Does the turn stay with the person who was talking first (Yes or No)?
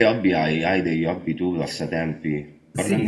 No